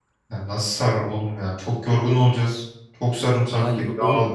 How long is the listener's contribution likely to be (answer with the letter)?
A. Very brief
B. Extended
B